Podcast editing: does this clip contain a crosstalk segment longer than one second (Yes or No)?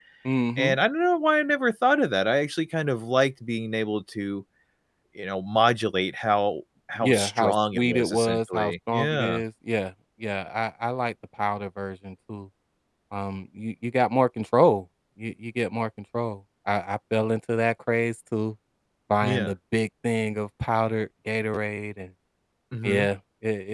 Yes